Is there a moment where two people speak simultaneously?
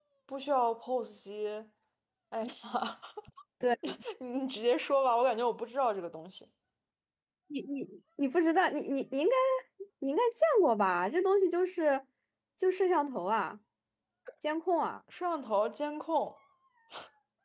No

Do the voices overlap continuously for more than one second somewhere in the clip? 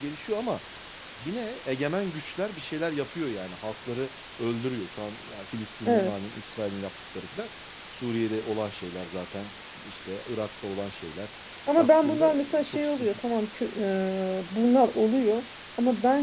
Yes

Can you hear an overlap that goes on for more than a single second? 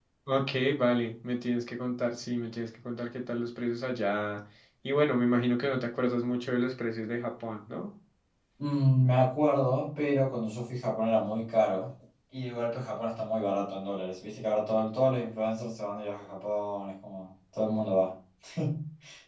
No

